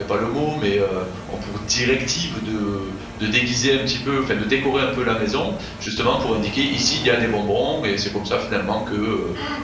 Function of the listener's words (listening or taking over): taking over